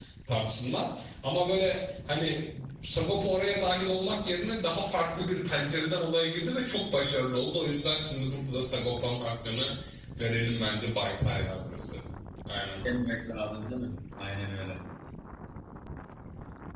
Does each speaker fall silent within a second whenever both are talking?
Yes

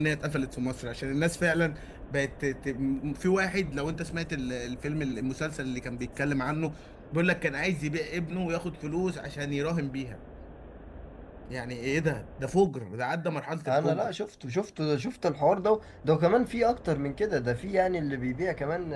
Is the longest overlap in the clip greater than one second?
No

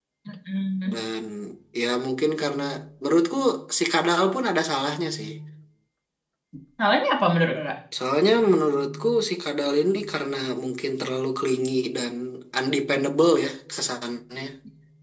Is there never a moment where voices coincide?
Yes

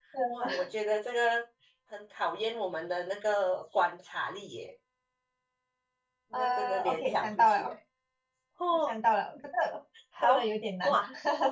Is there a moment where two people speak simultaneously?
Yes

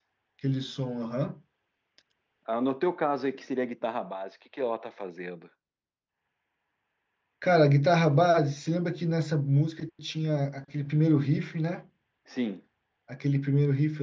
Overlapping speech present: No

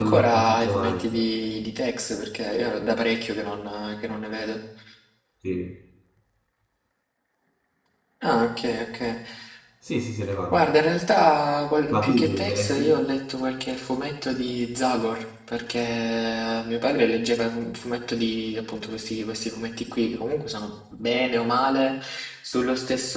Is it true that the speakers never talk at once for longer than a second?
No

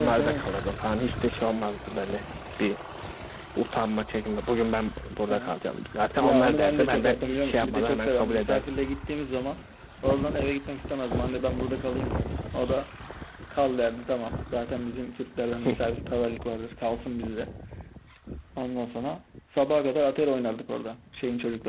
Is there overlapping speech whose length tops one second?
Yes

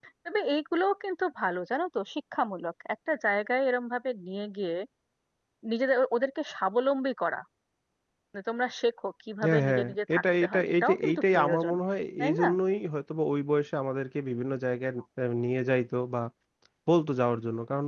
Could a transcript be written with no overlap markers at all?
No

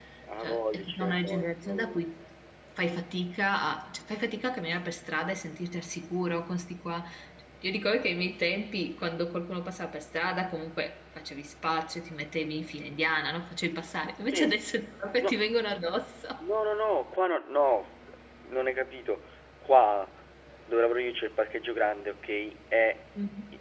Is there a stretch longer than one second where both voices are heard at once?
Yes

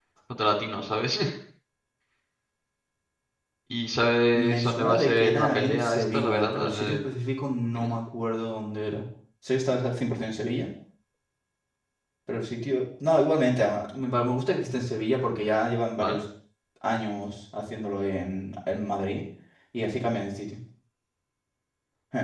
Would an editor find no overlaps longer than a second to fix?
No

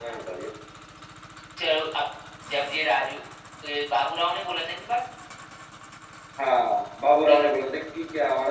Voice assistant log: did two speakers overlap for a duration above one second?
No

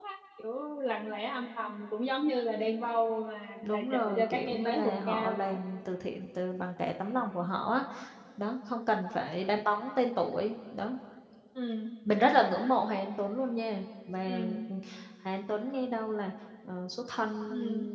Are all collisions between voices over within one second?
No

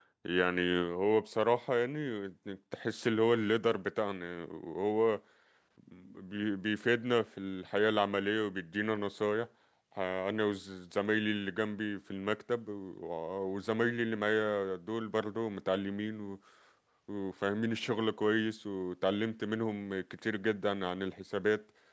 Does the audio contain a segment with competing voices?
No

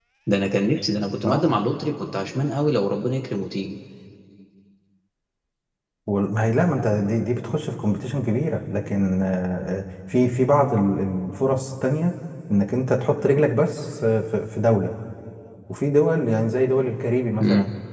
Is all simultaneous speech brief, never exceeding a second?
Yes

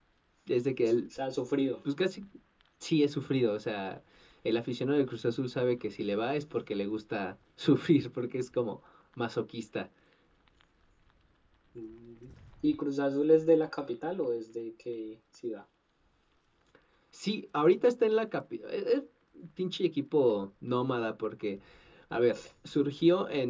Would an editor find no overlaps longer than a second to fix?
Yes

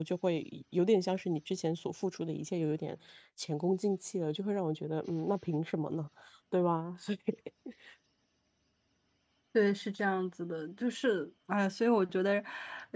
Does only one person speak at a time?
Yes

